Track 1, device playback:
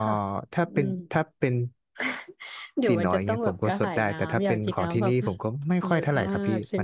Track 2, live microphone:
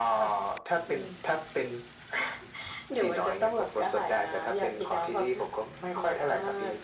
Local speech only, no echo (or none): none